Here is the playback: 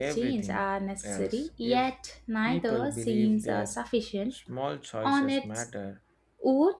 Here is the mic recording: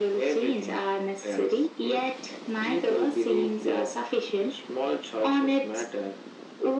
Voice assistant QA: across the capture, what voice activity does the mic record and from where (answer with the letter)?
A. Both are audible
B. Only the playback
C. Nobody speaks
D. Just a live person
B